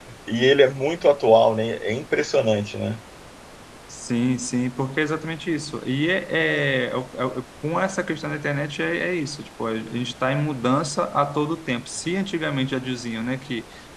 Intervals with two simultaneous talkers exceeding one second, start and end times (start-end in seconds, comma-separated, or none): none